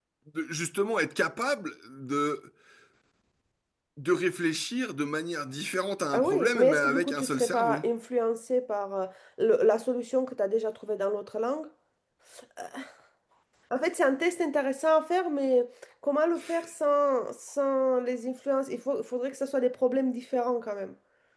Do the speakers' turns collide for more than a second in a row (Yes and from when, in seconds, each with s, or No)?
Yes, from 6.1 s